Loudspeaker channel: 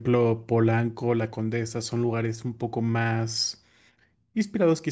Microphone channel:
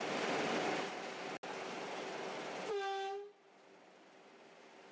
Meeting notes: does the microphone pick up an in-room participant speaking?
No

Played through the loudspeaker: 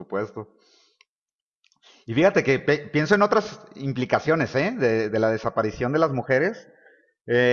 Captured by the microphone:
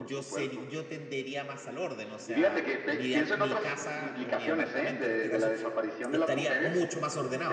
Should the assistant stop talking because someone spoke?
Yes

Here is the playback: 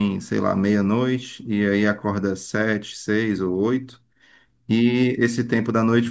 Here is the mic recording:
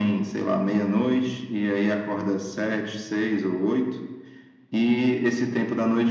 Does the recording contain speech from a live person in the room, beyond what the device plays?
No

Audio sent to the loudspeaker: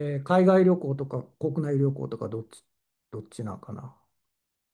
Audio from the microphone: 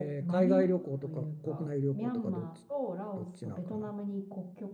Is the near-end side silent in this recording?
No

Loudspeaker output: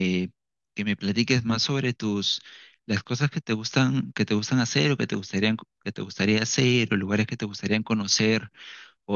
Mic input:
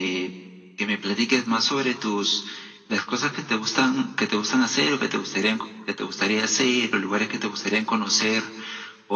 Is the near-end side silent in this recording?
Yes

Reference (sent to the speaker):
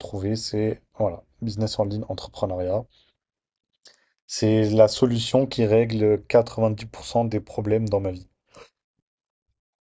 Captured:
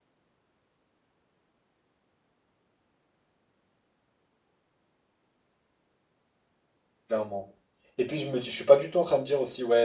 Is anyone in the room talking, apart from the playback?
Yes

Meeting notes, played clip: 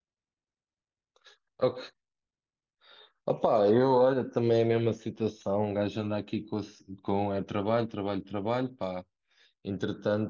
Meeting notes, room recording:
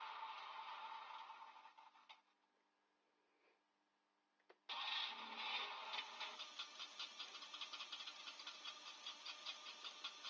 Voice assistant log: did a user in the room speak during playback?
No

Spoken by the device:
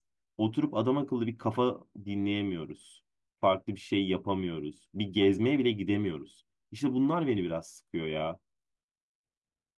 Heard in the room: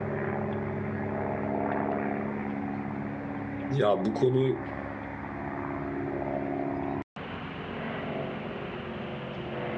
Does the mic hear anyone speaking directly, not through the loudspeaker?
Yes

